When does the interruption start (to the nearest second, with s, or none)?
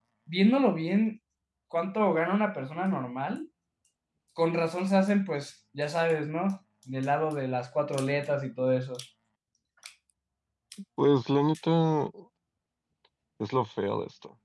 none